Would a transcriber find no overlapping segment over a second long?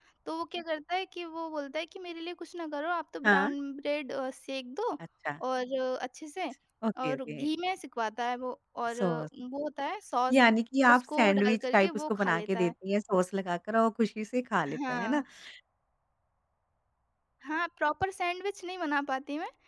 No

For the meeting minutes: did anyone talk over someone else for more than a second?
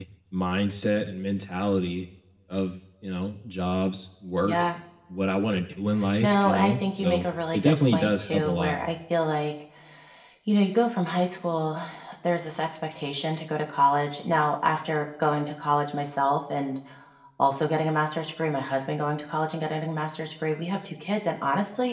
Yes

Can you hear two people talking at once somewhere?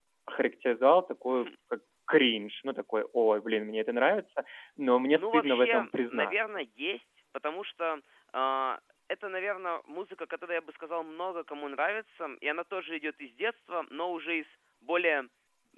Yes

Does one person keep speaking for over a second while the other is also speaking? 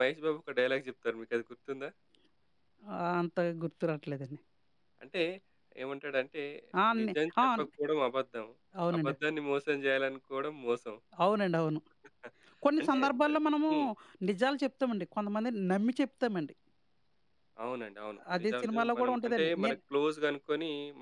Yes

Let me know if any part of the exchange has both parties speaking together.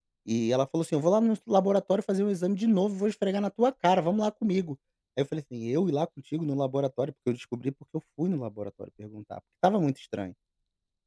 No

